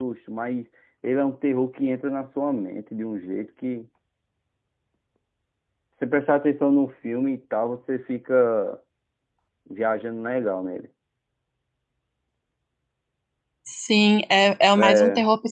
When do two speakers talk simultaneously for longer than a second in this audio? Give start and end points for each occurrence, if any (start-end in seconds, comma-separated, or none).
none